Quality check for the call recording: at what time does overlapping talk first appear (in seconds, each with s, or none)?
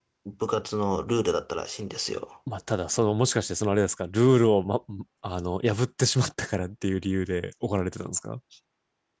none